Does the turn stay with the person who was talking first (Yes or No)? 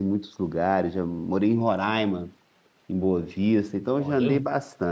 Yes